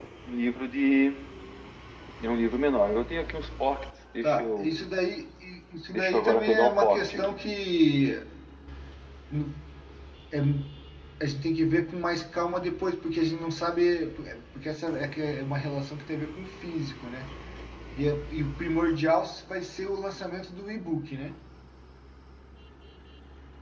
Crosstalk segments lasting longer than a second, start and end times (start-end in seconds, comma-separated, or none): 5.9-7.4